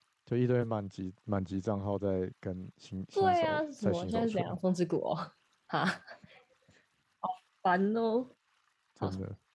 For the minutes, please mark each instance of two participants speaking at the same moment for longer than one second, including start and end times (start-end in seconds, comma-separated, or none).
3.1-4.5